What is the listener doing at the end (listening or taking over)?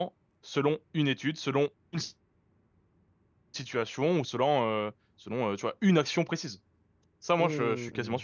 taking over